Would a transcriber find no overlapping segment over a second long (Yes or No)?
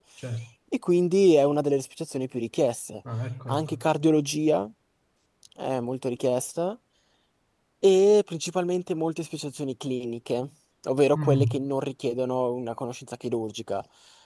Yes